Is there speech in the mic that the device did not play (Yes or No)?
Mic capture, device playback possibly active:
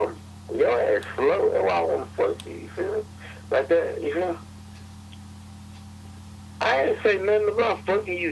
No